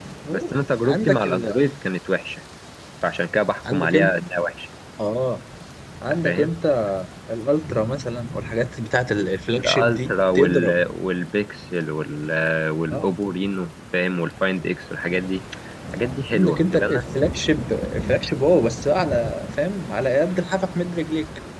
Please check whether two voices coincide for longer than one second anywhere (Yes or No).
Yes